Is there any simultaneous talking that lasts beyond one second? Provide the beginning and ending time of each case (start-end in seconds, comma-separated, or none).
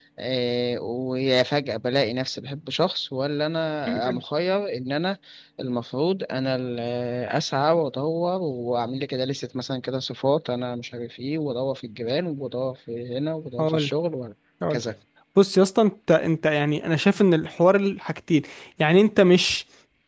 none